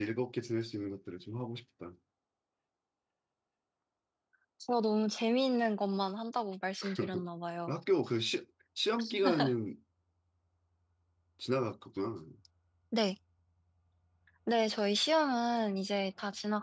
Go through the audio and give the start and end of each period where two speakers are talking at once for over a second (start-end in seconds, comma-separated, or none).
none